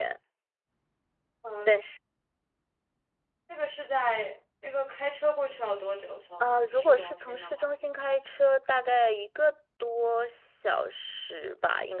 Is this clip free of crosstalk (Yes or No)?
No